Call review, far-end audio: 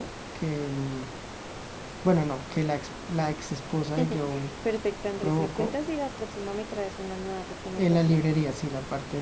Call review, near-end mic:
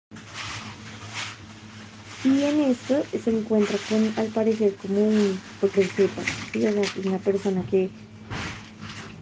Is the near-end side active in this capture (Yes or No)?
Yes